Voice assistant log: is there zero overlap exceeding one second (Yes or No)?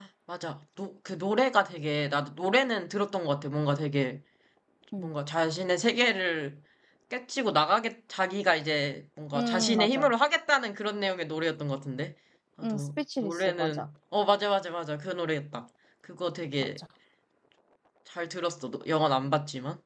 No